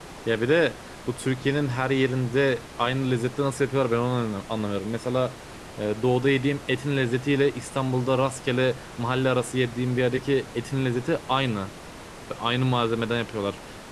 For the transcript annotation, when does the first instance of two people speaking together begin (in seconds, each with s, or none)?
none